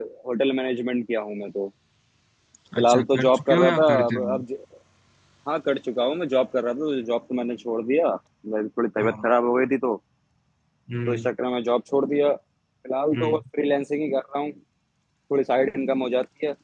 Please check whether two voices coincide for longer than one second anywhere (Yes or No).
Yes